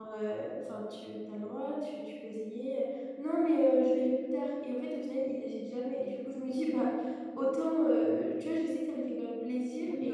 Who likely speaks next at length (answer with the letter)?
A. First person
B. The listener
A